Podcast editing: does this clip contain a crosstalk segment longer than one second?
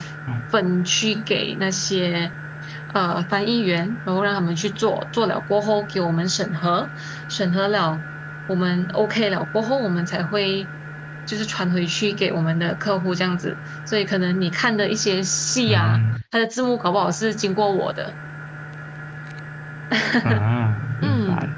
No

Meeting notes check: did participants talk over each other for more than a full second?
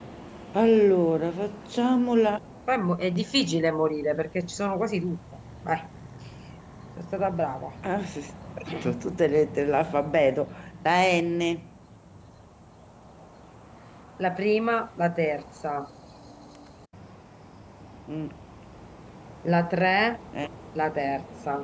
No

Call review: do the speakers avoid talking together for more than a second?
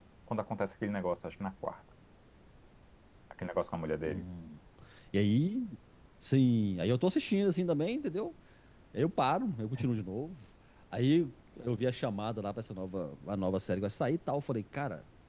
Yes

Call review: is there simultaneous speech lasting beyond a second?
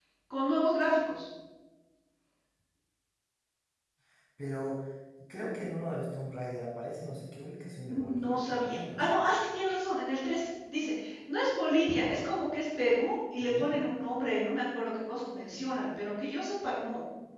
Yes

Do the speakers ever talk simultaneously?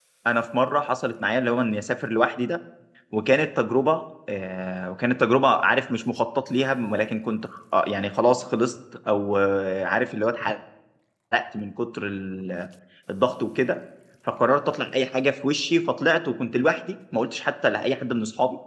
No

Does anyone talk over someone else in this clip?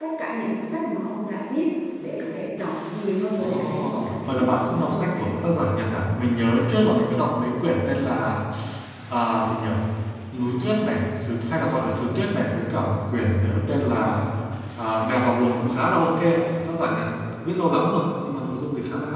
Yes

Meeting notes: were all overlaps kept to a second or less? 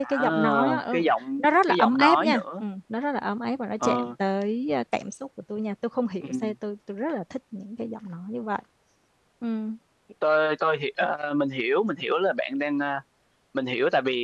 No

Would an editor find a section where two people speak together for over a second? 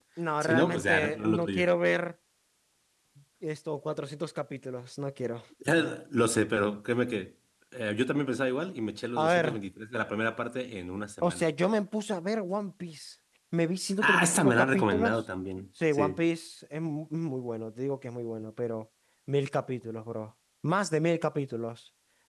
Yes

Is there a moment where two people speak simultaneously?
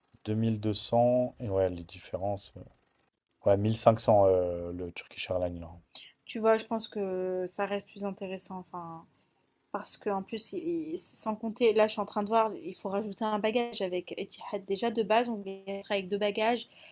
No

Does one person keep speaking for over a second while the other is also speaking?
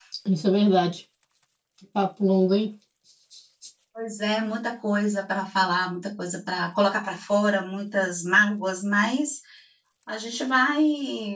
No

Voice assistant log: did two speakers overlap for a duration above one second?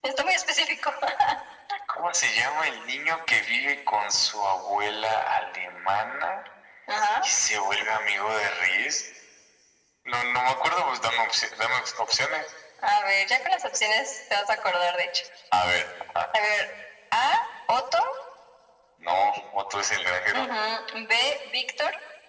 No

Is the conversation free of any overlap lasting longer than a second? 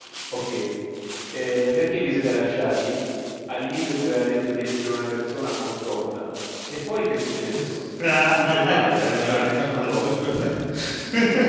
No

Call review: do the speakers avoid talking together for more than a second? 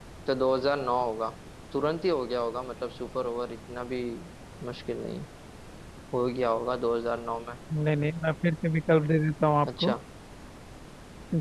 Yes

